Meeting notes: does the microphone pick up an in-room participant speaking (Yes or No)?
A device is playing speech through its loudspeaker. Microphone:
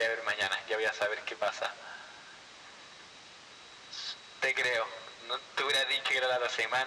No